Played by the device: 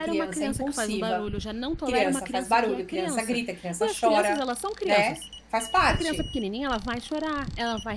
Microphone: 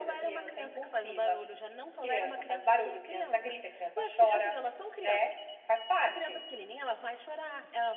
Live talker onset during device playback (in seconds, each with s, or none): none